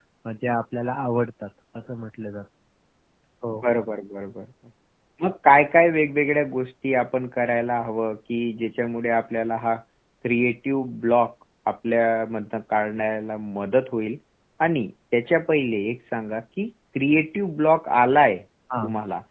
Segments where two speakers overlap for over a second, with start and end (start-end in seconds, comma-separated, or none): none